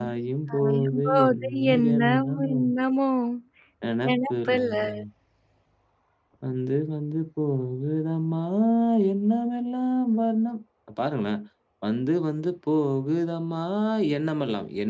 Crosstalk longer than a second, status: present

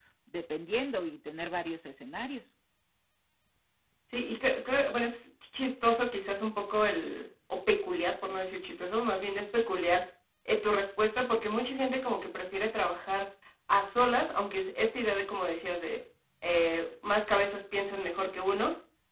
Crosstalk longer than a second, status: none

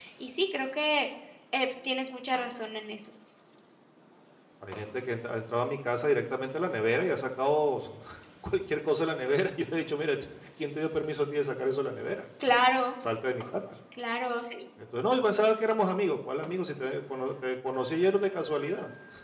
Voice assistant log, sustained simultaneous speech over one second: none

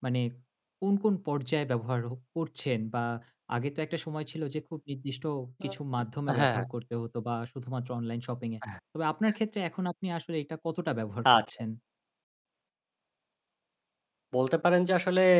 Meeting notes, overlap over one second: none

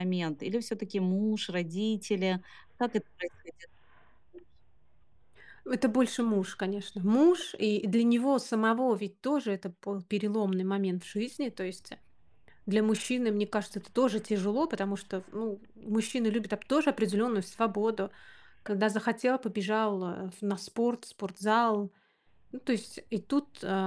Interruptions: none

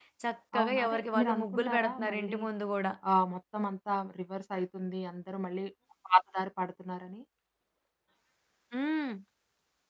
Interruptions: present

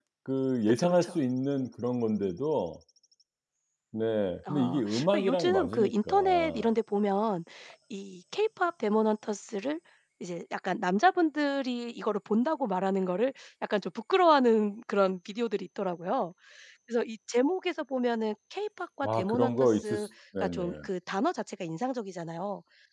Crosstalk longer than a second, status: present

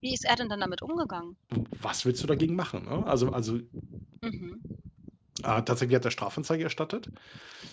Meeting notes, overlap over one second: none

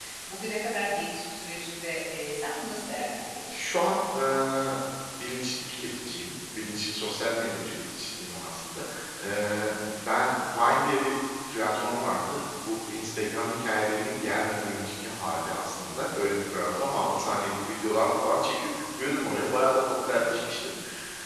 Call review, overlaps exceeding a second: none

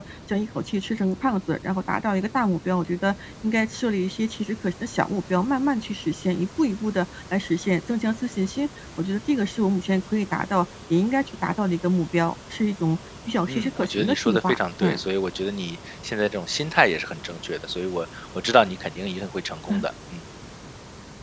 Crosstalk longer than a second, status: present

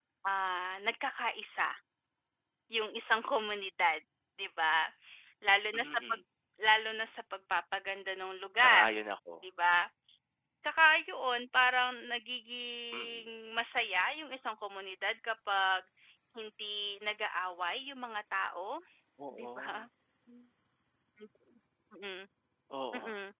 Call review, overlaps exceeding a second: none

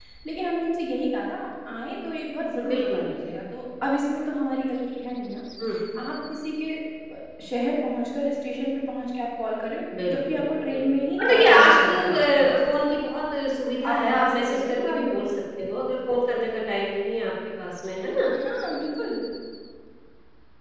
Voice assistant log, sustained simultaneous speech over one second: present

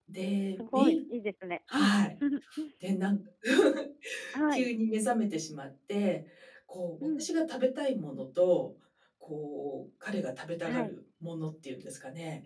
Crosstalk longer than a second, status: none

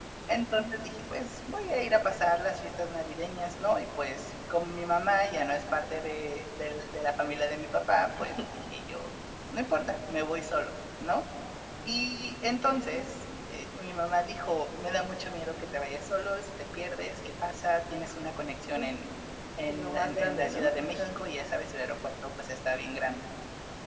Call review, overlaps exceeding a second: present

